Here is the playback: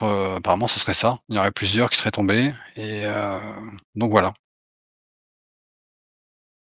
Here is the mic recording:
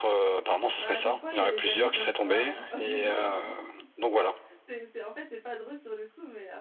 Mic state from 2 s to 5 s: both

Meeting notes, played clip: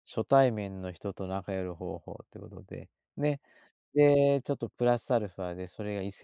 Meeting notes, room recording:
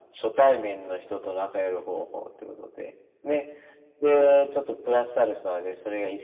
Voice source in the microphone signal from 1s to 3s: echo only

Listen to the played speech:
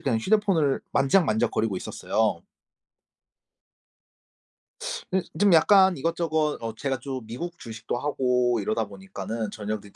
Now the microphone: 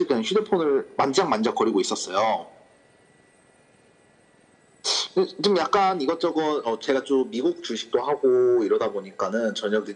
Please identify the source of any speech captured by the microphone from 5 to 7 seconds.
echo only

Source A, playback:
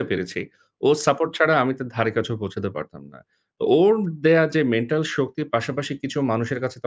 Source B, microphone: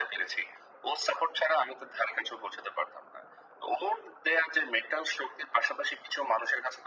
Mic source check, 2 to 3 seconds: echo only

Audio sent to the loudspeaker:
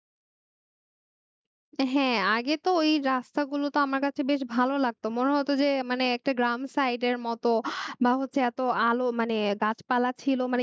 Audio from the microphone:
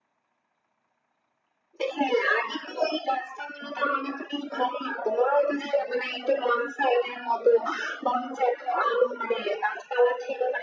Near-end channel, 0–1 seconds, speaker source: neither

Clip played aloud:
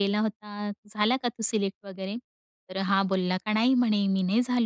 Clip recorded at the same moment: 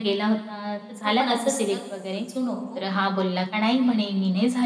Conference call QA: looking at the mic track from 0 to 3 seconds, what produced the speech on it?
both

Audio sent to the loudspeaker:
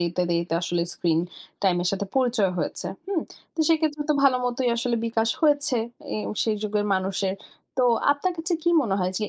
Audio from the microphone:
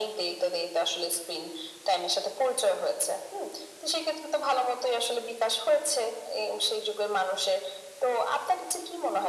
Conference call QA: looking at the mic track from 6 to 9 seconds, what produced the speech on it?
echo only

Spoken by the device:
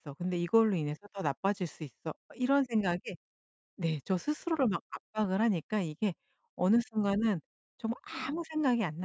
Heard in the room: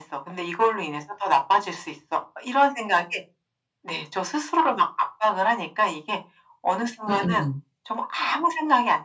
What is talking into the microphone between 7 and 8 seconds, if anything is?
both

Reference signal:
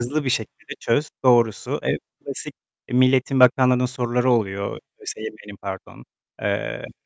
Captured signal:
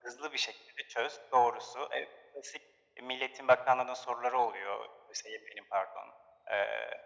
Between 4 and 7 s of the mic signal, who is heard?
echo only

